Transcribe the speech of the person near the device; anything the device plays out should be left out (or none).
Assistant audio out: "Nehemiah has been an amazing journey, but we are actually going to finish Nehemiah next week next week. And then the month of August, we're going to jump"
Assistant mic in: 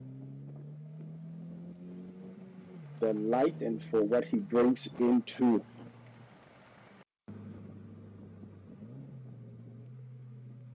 the light and for what he brings into